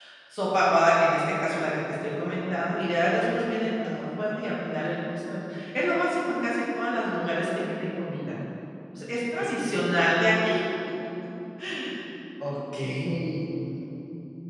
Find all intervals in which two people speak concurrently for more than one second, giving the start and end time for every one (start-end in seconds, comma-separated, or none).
none